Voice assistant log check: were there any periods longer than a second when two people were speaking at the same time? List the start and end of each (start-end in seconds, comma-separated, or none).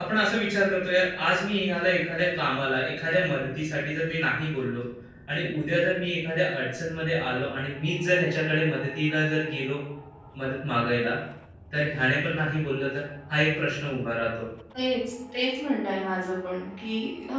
none